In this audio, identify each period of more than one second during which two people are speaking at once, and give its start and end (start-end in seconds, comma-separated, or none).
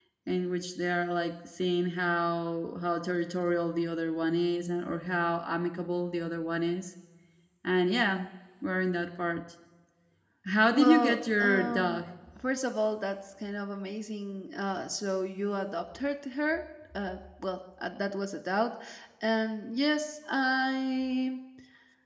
10.7-12.0